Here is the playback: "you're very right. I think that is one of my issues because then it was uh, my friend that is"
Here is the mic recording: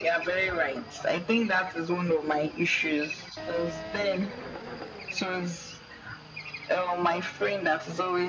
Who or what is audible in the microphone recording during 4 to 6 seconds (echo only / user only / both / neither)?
echo only